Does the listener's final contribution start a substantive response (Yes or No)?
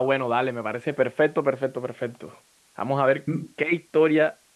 No